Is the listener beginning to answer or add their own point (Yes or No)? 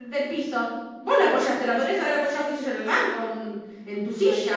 Yes